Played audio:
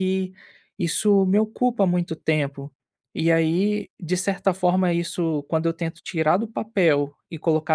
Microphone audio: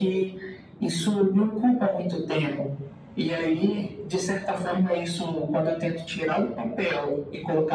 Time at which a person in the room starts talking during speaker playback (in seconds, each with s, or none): none